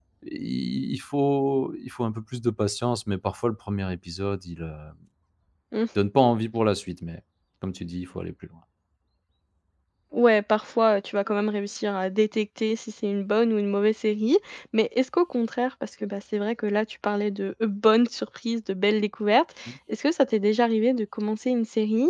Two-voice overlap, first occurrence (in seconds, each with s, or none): none